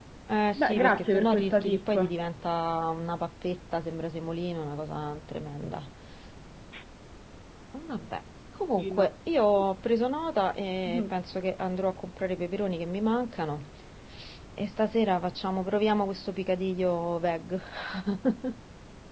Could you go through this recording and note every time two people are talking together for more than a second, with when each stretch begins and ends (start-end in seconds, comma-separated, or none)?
0.6-2.1